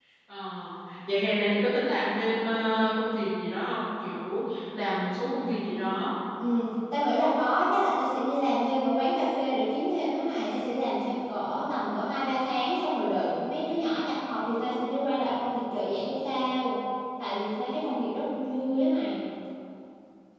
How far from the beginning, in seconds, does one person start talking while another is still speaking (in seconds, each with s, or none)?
none